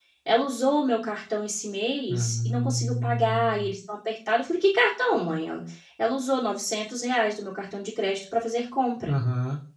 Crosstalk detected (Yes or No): Yes